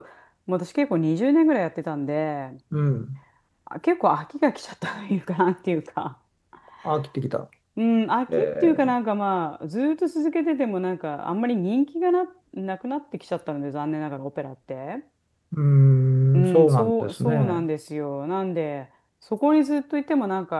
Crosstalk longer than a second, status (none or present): present